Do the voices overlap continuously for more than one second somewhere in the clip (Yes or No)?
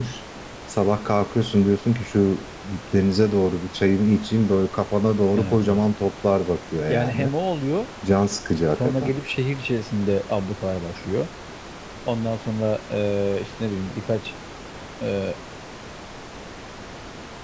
No